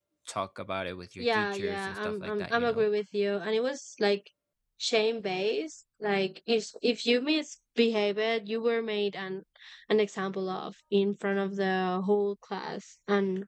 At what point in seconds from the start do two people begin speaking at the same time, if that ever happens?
1.2 s

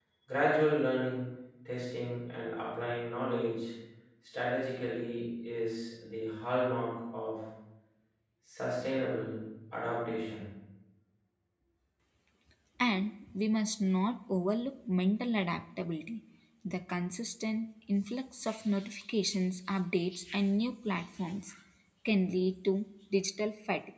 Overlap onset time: none

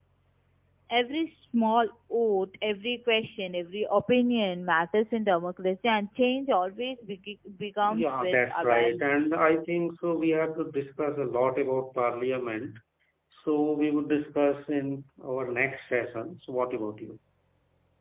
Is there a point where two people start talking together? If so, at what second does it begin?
7.8 s

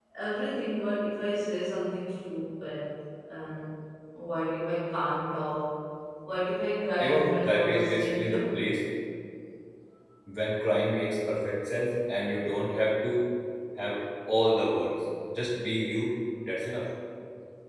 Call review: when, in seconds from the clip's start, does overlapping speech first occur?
7.0 s

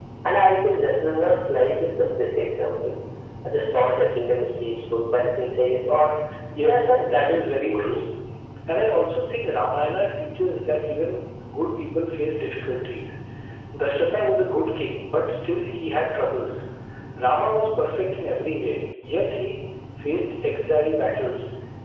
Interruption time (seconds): 6.6 s

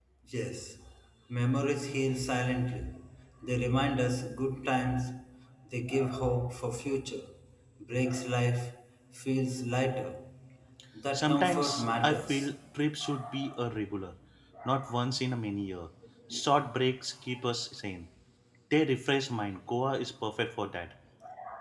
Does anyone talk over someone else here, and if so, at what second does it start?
11.1 s

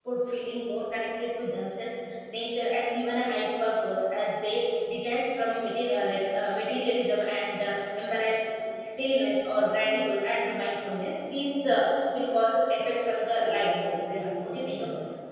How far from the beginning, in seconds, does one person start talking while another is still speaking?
13.3 s

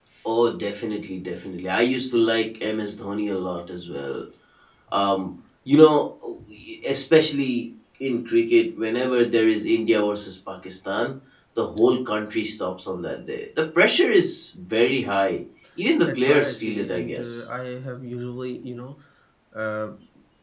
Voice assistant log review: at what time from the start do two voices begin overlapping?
16.0 s

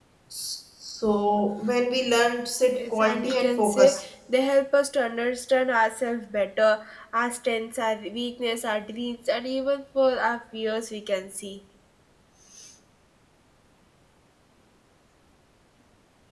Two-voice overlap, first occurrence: 2.7 s

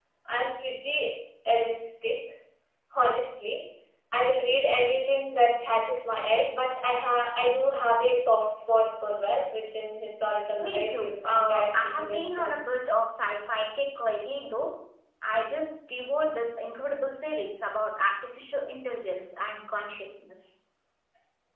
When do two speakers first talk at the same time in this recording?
10.6 s

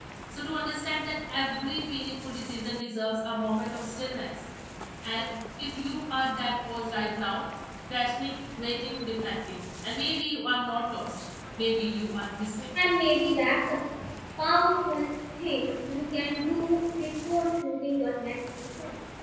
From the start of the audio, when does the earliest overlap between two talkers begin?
none

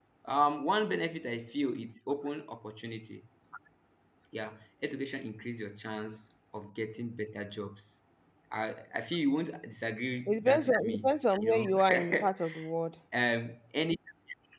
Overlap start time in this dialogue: 10.3 s

